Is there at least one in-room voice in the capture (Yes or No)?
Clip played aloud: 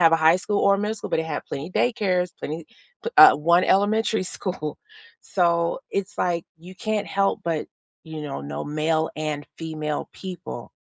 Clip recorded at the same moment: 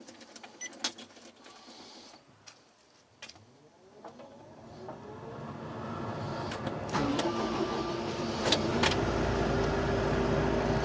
No